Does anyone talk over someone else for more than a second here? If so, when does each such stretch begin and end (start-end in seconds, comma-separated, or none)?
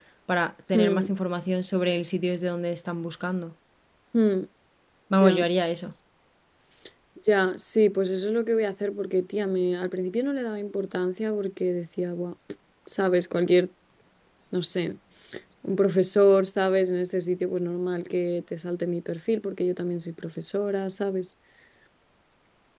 none